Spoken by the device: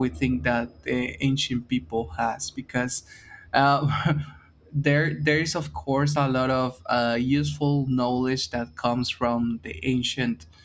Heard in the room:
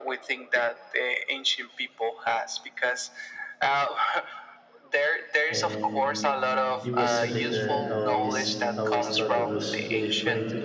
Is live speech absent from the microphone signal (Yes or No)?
No